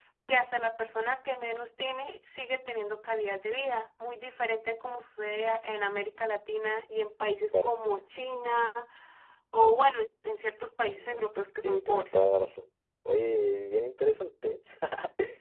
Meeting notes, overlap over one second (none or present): present